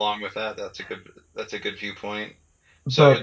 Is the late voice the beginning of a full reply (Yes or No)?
No